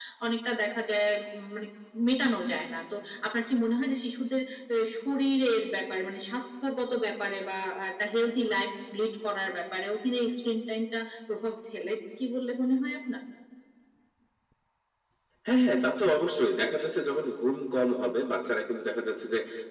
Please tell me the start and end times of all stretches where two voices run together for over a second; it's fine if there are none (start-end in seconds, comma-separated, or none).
none